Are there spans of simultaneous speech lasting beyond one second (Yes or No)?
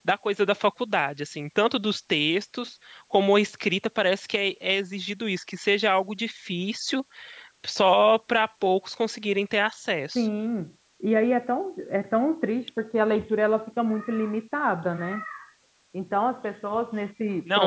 No